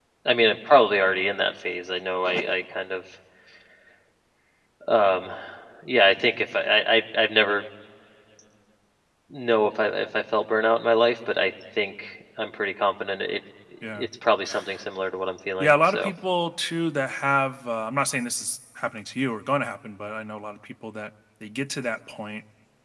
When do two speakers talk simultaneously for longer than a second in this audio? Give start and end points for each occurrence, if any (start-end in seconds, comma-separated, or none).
none